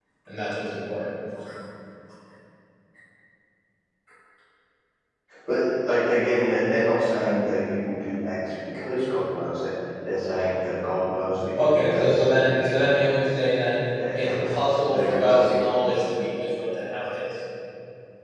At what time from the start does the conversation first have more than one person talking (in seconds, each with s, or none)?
11.6 s